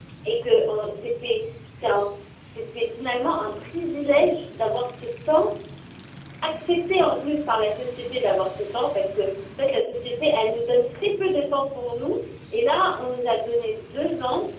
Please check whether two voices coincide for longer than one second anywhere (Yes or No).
No